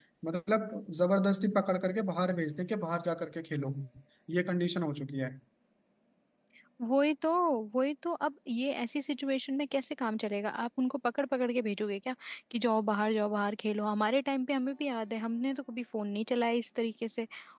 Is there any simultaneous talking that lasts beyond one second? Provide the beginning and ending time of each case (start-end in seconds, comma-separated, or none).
none